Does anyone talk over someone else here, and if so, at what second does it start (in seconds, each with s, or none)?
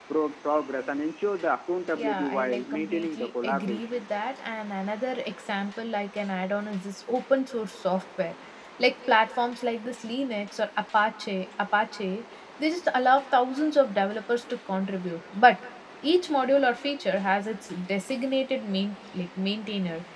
2.0 s